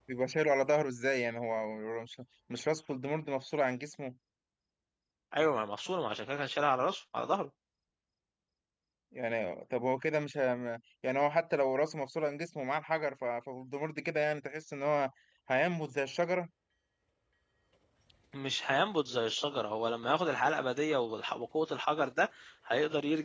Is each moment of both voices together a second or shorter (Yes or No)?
Yes